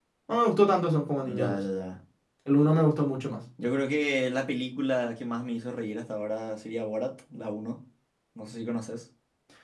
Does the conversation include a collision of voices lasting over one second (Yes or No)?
No